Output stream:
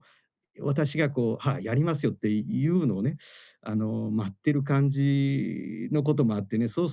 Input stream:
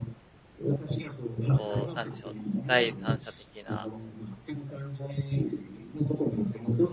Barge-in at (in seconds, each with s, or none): 1.5 s